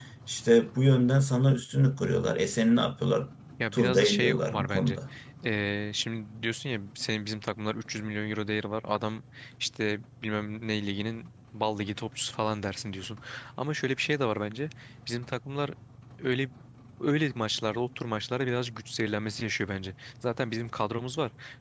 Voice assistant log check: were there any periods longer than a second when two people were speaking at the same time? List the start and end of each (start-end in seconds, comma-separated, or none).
3.7-5.0